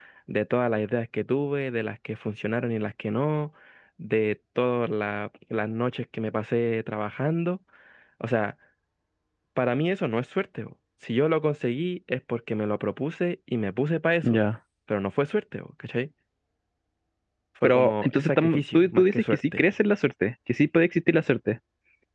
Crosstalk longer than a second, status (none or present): present